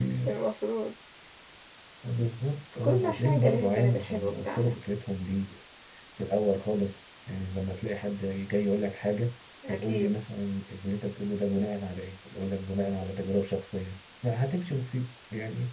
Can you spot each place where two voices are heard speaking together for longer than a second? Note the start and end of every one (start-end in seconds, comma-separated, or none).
2.8-4.8